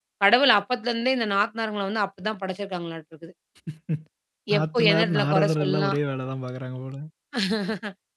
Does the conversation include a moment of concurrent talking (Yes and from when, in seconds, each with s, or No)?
Yes, from 4.6 s